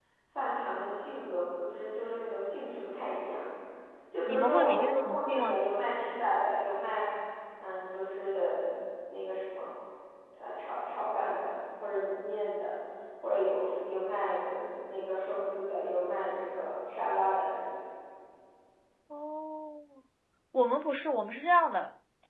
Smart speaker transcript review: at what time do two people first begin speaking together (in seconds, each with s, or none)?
4.3 s